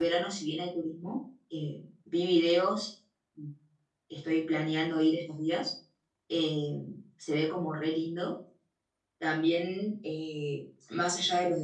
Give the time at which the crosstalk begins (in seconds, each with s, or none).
none